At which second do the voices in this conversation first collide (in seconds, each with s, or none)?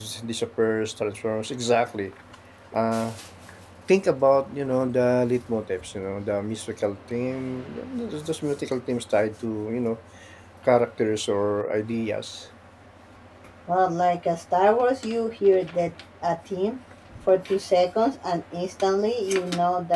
none